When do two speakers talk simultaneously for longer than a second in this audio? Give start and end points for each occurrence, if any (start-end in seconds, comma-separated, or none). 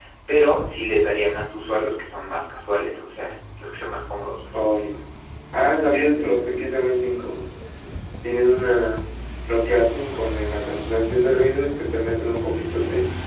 none